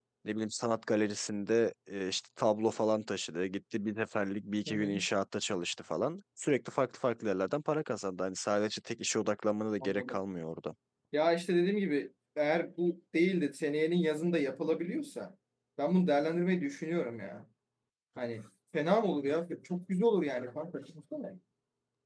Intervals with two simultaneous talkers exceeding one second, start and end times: none

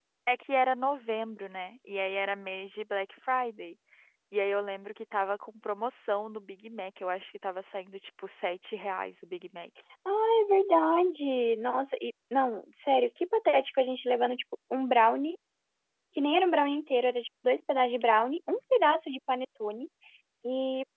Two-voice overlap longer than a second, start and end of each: none

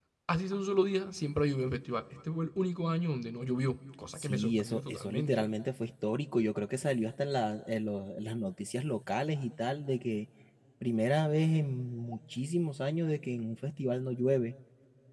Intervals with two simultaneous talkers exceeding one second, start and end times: 4.1-5.5

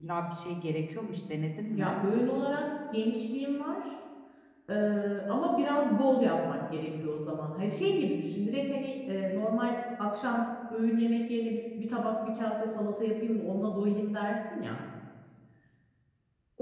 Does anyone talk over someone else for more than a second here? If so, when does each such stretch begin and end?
none

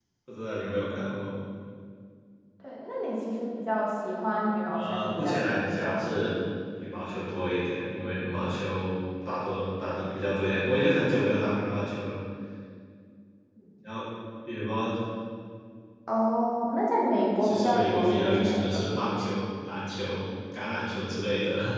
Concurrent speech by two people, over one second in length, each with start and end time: 4.7-6.2, 17.4-18.8

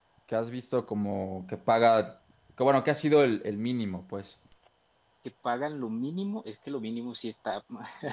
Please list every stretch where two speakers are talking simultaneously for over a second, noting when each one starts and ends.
none

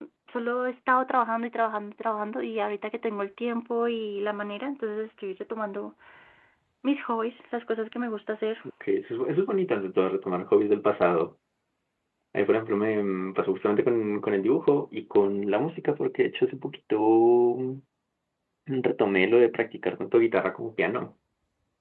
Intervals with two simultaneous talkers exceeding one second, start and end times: none

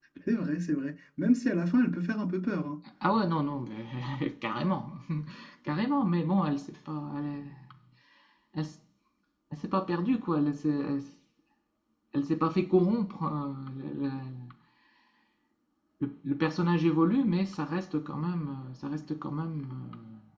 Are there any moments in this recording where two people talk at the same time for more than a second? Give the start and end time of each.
none

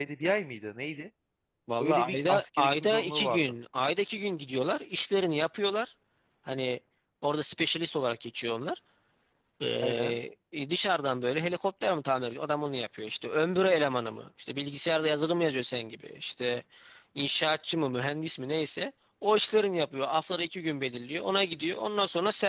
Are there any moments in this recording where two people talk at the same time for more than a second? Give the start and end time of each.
1.8-3.4

